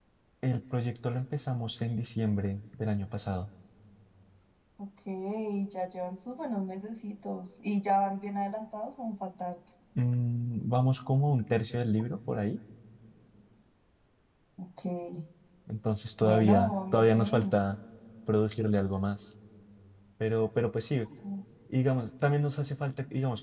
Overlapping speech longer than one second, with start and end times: 16.2-17.6

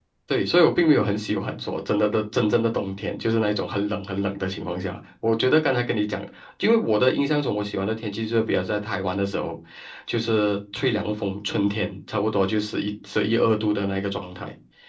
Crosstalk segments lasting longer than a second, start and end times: none

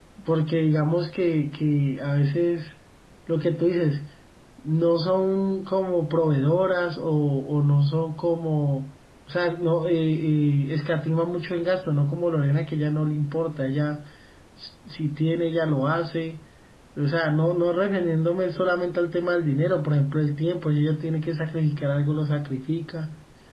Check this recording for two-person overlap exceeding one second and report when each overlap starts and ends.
none

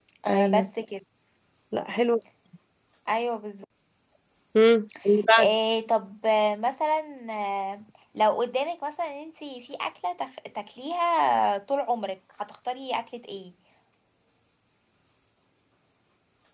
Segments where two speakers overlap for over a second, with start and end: none

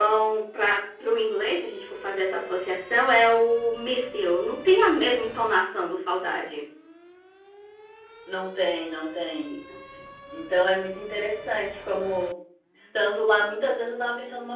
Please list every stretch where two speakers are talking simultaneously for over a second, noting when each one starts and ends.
none

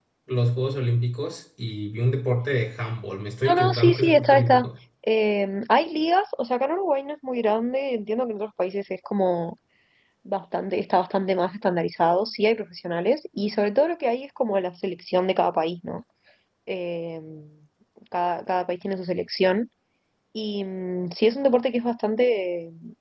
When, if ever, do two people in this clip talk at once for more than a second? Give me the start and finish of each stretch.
3.5-4.7

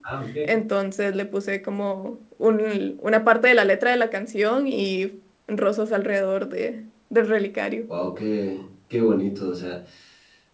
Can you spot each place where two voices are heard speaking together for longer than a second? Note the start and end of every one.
none

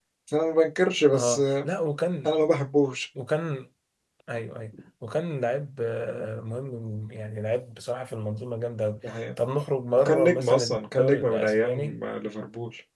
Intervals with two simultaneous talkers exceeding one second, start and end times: 10.0-11.9

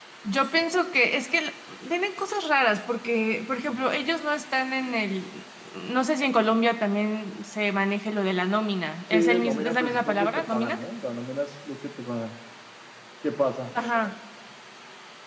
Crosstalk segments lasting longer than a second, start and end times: 9.1-10.8

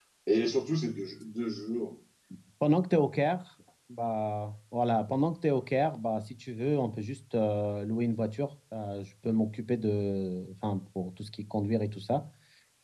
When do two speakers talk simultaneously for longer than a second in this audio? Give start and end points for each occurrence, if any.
none

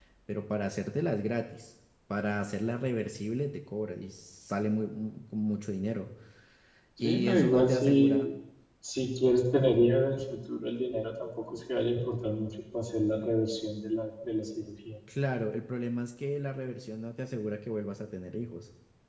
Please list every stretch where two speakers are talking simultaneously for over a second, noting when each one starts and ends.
7.0-8.3

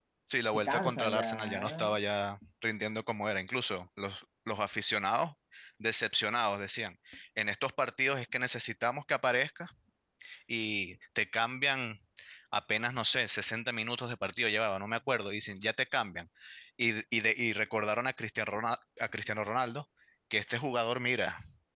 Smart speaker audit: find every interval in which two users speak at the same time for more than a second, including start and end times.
0.5-2.0

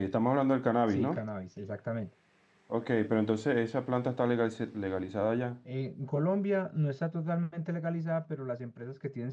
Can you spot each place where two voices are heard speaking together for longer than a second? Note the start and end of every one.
none

